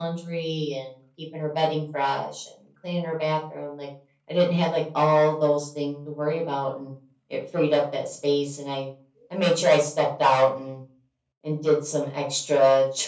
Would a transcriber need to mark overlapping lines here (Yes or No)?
No